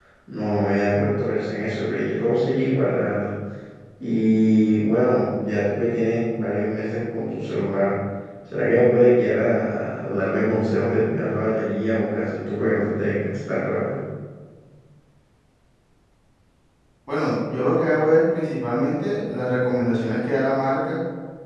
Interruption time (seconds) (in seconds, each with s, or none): none